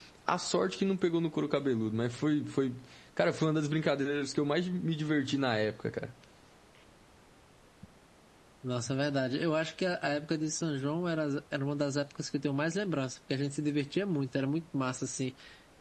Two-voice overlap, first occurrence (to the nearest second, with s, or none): none